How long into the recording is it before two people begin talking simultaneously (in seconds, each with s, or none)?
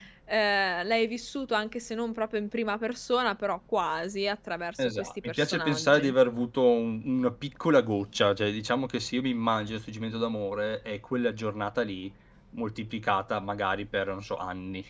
4.8 s